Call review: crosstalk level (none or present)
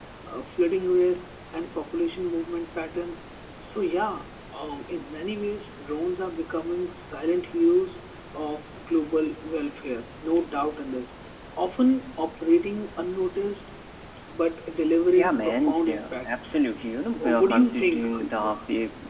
present